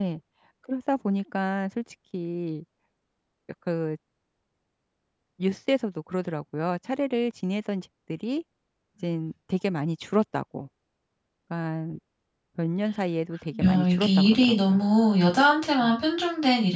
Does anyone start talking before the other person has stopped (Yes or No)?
Yes